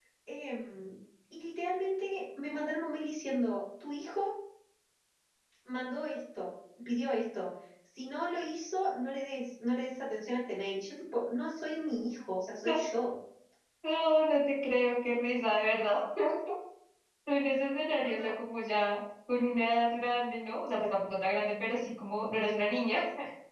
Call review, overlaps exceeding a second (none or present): none